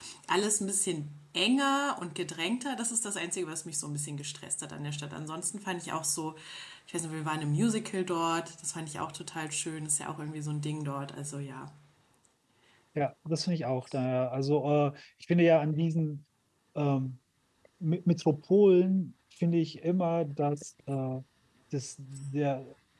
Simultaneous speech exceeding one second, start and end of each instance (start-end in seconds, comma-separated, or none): none